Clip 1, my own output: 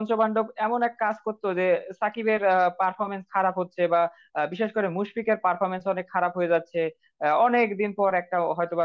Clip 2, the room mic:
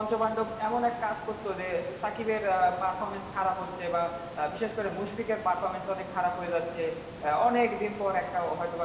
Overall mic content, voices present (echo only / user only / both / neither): echo only